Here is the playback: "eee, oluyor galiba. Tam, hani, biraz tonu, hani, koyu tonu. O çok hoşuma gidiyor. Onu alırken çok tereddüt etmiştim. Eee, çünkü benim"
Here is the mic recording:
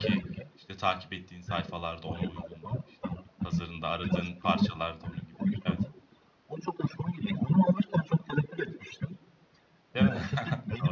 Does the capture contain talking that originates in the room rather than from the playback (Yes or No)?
Yes